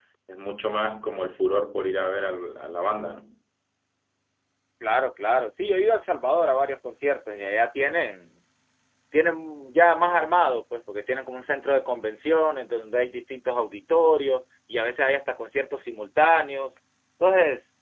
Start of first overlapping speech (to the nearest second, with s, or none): none